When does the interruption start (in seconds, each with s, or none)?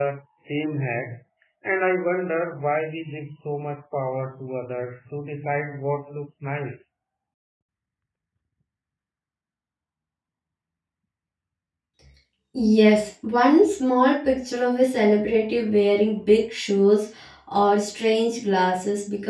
none